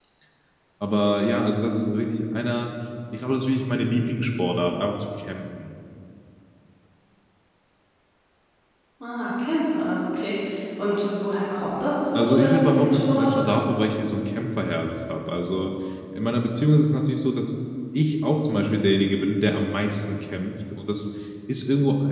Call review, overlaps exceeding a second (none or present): present